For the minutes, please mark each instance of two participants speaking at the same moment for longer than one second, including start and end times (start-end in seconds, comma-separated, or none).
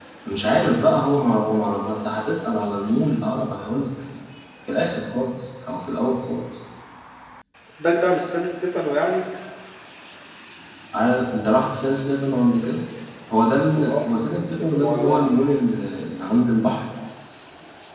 13.7-15.3